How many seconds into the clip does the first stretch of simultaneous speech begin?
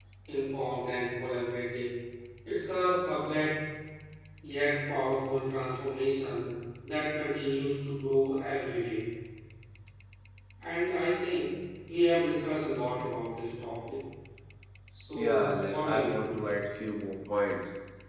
15.2 s

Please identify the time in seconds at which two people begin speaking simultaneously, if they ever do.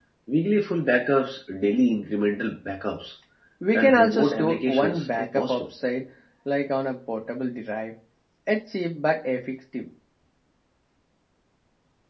3.8 s

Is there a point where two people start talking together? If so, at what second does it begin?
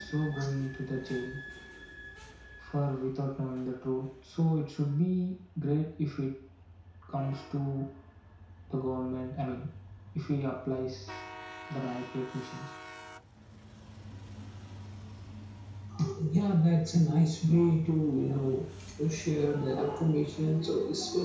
none

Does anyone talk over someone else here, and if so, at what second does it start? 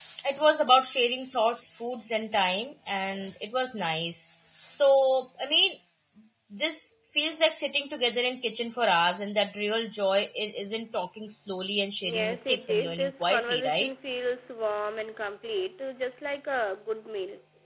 12.0 s

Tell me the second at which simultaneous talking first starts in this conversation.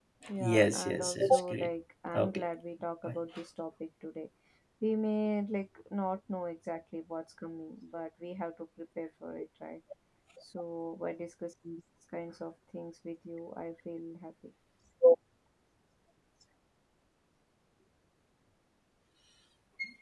0.5 s

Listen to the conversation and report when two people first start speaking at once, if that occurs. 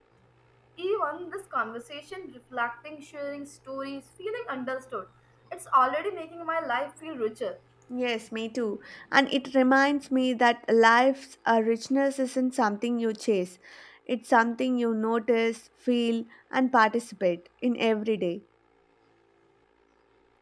none

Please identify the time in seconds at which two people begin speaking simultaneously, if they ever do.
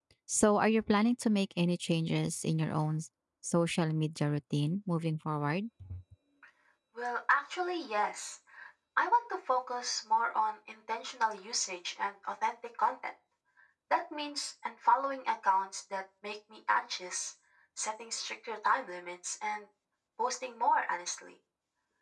none

